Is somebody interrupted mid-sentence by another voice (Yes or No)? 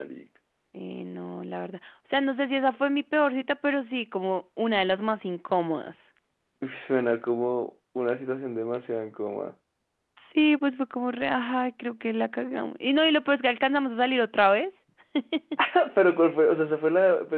No